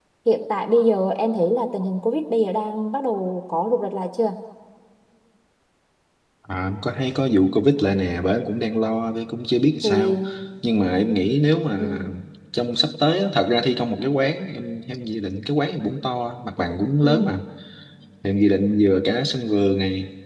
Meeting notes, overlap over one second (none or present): none